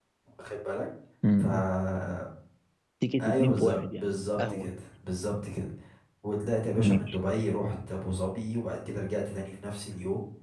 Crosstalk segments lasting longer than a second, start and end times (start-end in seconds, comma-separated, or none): 3.2-4.7